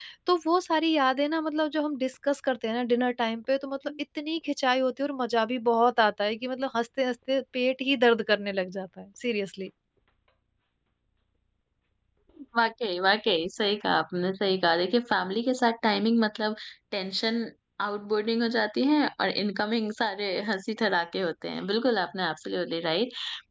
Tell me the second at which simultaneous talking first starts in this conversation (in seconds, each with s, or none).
none